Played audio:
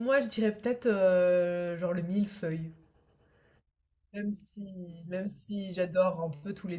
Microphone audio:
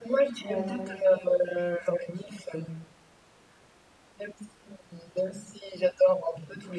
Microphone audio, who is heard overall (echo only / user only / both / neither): both